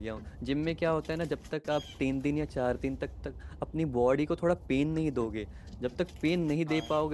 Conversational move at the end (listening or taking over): listening